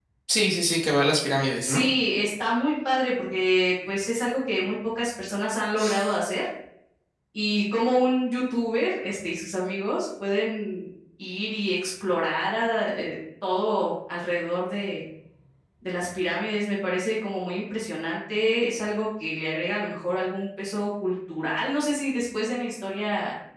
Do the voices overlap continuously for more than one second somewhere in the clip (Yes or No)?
No